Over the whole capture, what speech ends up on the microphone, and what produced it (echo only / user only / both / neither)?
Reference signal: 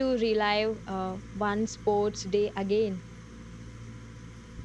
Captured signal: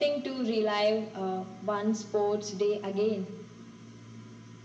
echo only